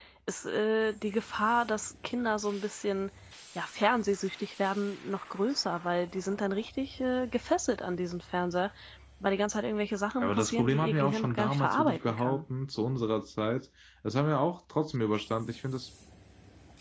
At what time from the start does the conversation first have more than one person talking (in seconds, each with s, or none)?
10.2 s